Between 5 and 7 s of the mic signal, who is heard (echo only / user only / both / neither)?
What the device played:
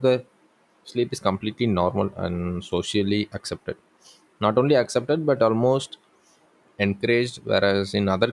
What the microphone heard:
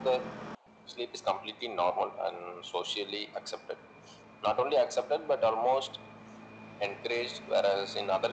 echo only